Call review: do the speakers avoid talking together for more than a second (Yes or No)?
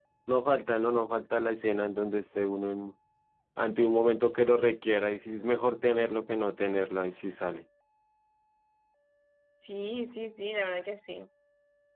Yes